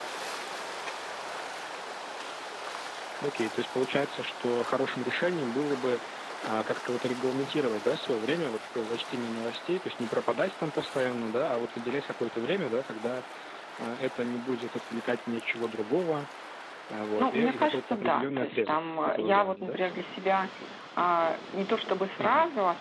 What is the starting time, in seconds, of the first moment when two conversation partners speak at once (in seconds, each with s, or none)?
17.2 s